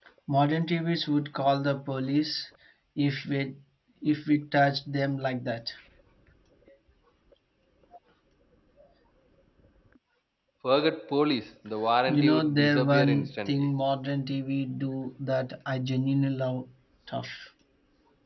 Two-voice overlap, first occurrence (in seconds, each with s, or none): 12.1 s